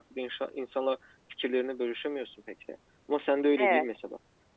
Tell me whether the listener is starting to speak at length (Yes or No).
No